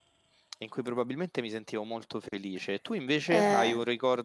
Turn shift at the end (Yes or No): No